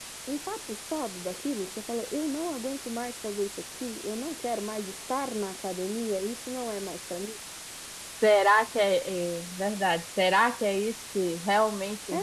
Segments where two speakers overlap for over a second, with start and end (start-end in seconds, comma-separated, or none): none